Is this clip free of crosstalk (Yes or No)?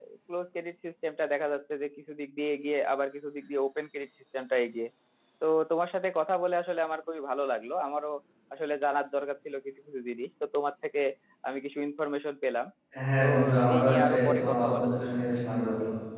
No